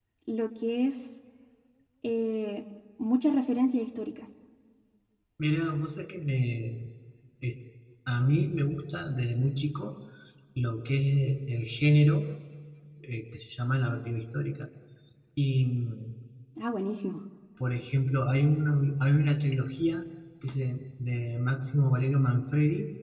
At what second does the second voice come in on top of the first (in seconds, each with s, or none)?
none